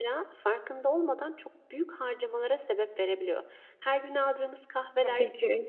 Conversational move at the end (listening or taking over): listening